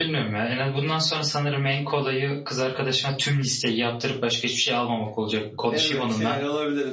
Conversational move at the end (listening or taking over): taking over